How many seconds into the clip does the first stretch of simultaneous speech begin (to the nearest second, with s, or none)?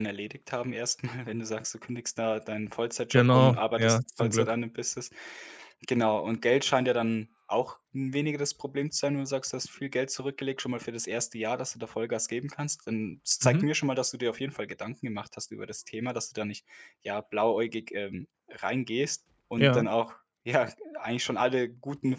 3 s